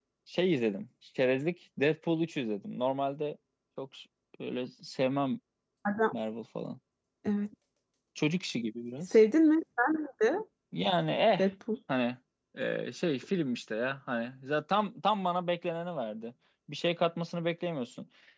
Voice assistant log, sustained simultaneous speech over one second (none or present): none